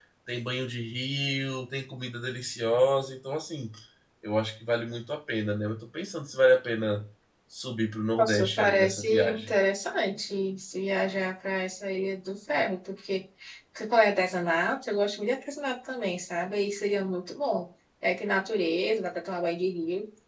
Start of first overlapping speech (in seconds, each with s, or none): 8.2 s